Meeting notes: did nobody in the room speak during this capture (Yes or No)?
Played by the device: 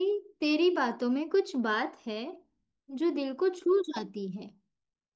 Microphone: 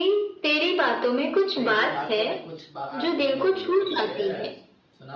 No